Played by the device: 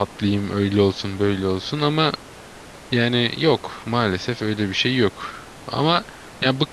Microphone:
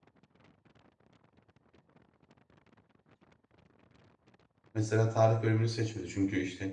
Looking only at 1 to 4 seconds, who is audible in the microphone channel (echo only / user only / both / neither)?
neither